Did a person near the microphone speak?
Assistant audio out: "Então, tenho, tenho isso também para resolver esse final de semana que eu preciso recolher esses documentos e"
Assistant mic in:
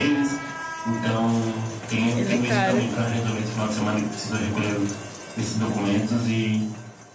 Yes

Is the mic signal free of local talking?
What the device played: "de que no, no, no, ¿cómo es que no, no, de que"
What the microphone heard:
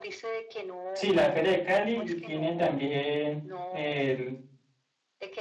No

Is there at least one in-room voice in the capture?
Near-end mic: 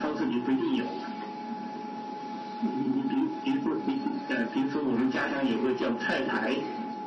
No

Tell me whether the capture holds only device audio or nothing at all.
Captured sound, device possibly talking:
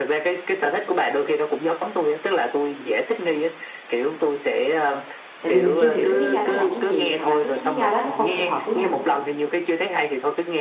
No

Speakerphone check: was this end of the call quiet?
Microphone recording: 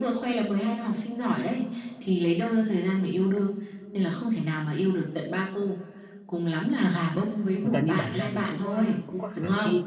No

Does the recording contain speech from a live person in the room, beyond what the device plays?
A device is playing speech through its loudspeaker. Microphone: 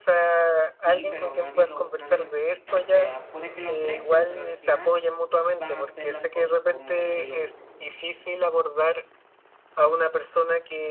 Yes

